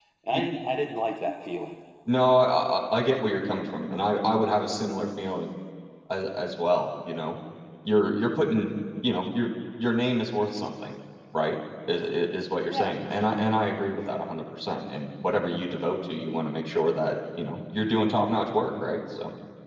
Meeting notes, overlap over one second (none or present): none